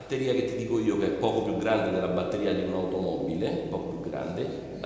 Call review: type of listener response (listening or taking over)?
listening